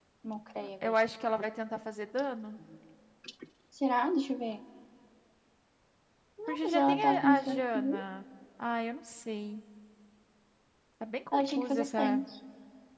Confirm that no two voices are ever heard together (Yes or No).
No